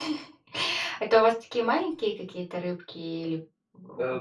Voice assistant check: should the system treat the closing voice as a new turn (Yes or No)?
Yes